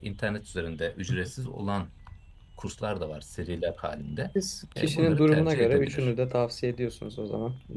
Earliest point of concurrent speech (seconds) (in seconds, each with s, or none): 4.8 s